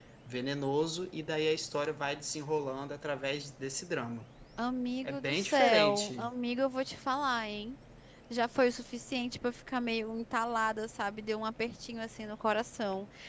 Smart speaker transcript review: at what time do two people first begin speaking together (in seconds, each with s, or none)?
5.0 s